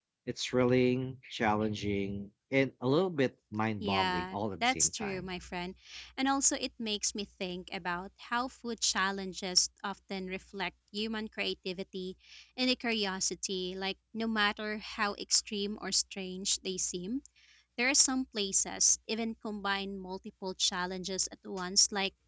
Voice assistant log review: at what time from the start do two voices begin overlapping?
4 s

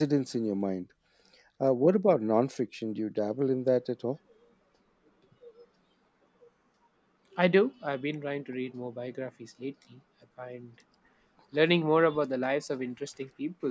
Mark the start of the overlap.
none

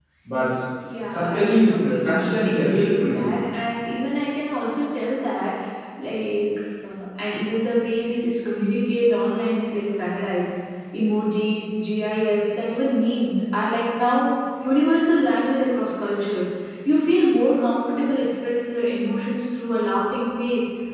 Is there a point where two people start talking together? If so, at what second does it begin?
1 s

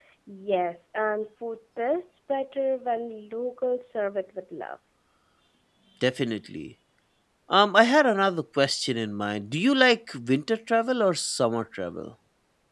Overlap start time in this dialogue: none

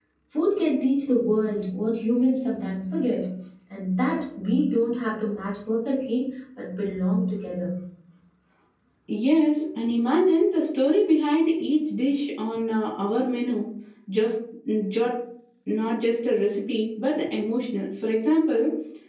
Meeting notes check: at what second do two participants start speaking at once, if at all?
none

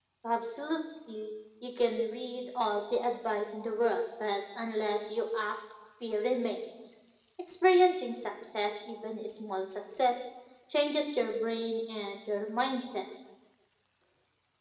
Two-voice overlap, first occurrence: none

